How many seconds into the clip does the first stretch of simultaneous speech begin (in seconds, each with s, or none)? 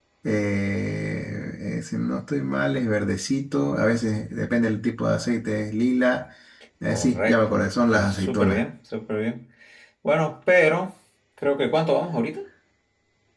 6.9 s